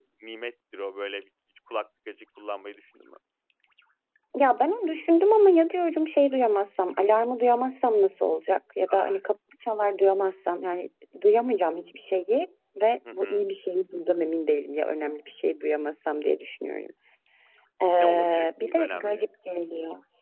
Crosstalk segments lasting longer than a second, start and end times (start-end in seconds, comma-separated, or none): 18.0-19.2